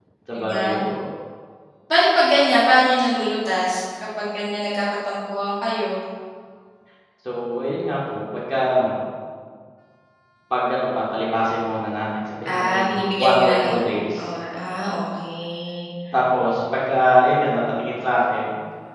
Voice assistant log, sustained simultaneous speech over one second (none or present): present